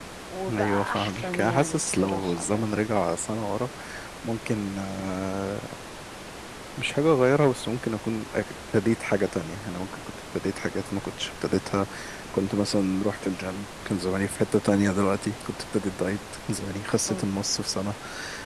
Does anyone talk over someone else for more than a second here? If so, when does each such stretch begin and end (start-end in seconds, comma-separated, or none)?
0.5-2.7